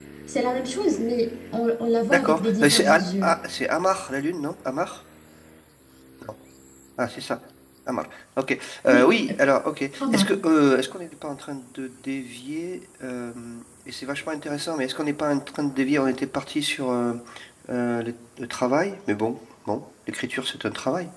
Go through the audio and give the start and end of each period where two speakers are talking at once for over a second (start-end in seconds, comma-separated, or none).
2.1-3.3